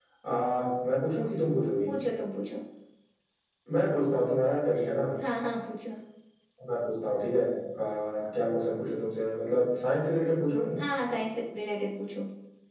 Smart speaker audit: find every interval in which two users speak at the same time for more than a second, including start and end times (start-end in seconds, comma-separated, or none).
none